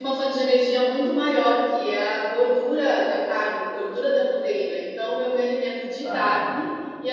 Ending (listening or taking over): listening